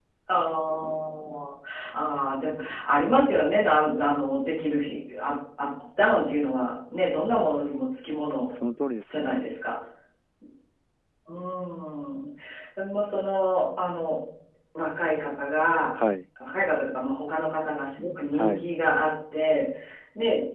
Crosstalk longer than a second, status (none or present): none